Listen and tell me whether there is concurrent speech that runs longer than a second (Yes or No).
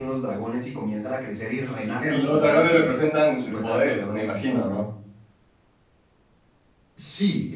Yes